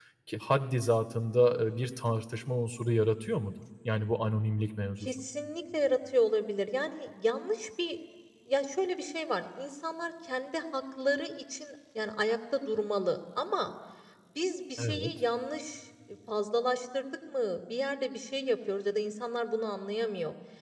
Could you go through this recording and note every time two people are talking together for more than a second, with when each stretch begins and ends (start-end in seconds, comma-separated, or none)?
none